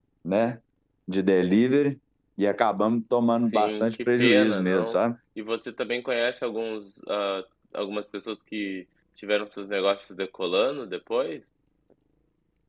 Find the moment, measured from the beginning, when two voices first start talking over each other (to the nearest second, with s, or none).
3 s